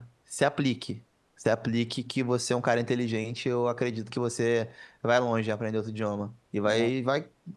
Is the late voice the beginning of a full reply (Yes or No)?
No